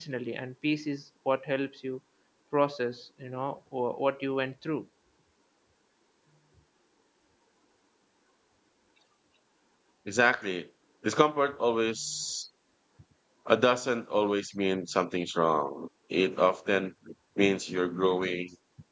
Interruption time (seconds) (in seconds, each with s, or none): none